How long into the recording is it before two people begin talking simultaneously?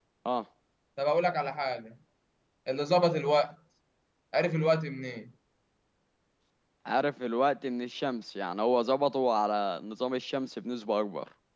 none

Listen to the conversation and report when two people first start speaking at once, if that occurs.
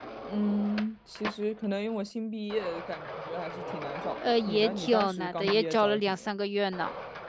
4.2 s

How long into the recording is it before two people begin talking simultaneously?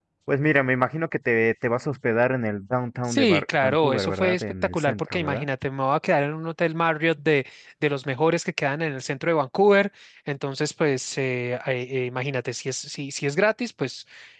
3.1 s

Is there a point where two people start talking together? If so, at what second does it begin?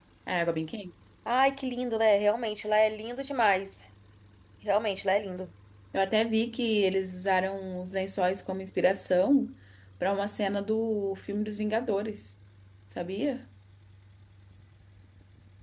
none

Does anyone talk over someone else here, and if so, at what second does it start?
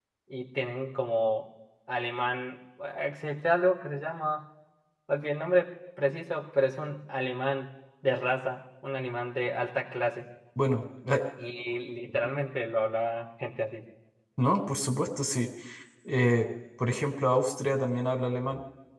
none

